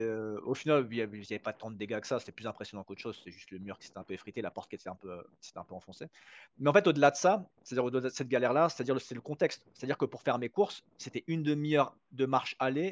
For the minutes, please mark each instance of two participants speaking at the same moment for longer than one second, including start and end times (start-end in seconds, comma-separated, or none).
none